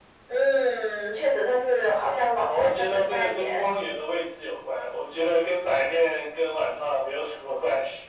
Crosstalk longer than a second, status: present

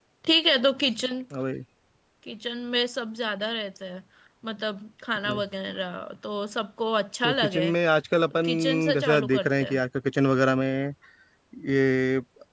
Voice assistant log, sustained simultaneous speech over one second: present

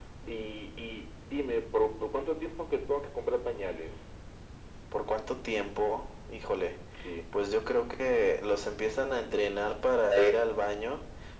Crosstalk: none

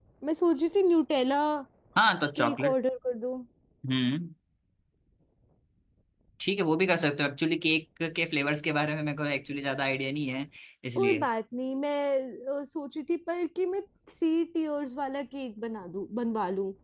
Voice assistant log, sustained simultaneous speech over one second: none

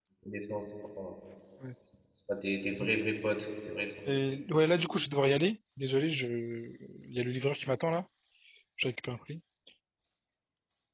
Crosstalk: none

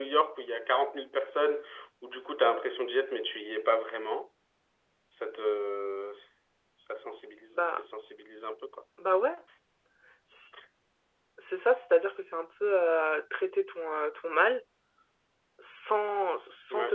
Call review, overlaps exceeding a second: none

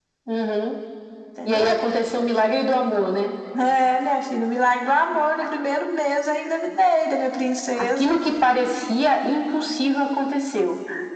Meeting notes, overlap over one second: none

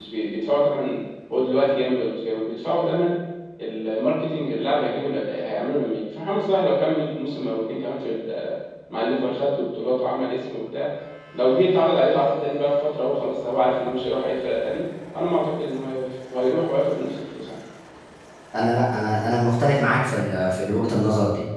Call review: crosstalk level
none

